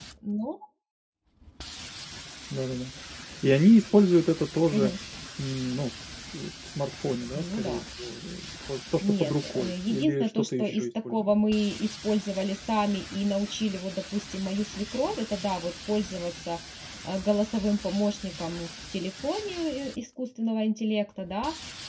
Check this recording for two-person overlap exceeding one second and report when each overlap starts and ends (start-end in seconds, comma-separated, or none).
9.0-11.3